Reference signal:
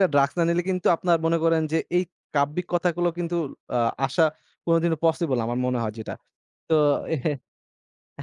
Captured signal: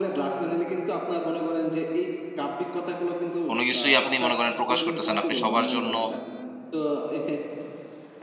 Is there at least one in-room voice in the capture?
Yes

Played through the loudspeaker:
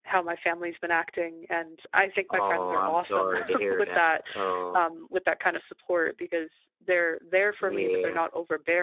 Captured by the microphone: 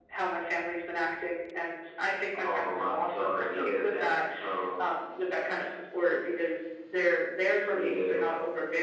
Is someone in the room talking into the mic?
No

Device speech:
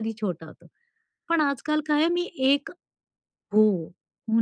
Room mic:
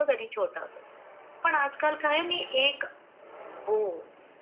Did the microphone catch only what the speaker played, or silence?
Yes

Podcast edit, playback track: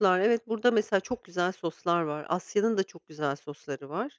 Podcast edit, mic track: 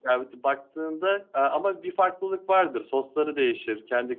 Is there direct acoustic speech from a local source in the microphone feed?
Yes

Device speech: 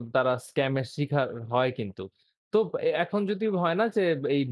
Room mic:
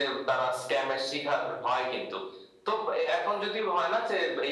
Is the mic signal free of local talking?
Yes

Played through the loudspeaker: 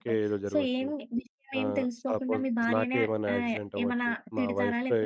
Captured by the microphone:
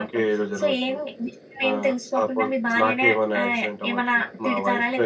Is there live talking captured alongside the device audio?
No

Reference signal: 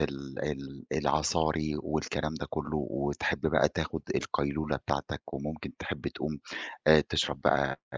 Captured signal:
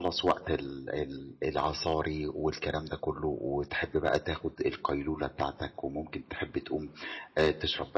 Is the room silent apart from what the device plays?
Yes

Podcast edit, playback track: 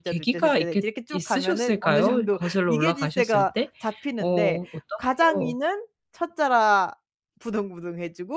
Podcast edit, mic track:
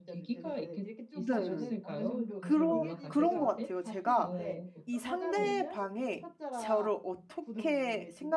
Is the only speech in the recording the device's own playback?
No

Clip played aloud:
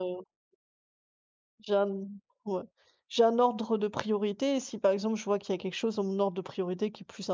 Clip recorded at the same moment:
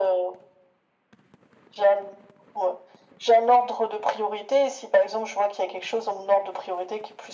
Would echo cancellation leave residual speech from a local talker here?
No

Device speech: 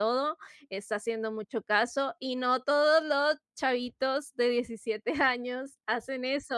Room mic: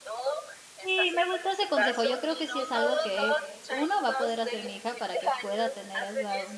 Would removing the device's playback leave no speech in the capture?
No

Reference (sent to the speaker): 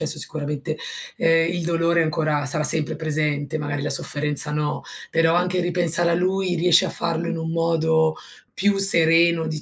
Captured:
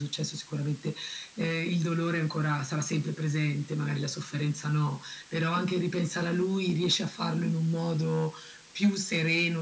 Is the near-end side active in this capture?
No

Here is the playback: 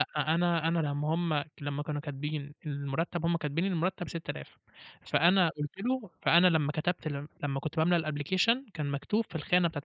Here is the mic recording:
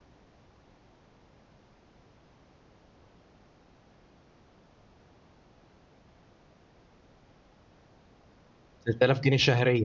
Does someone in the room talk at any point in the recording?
Yes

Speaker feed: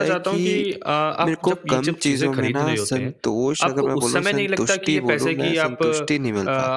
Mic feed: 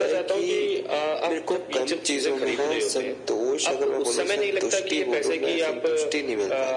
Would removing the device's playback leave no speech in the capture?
Yes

